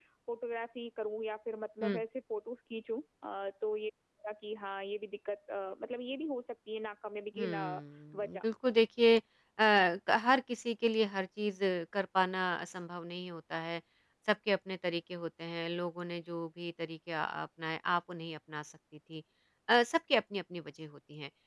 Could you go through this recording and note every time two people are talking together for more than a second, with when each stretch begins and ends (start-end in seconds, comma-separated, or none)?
none